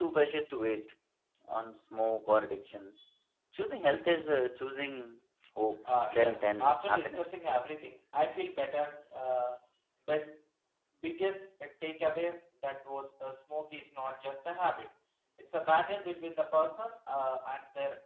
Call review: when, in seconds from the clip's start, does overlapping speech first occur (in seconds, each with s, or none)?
5.8 s